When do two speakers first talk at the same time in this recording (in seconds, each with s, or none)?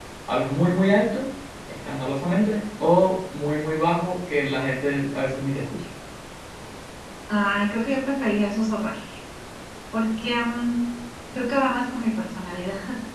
none